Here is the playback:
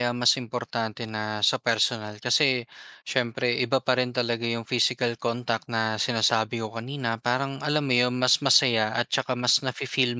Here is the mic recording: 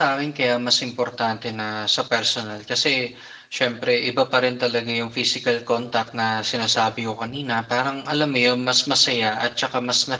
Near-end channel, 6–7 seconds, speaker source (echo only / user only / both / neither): echo only